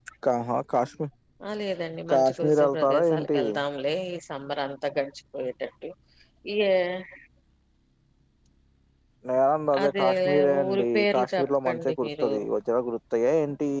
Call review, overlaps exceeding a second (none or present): present